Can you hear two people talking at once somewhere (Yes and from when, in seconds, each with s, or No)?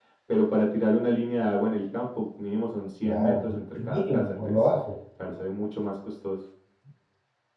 Yes, from 3.0 s